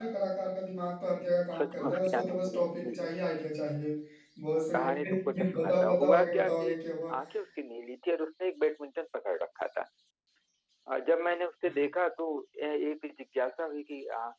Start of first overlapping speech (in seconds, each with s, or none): 1.6 s